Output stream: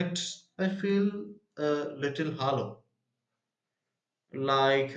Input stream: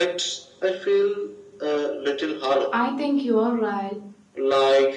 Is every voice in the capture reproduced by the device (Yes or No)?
No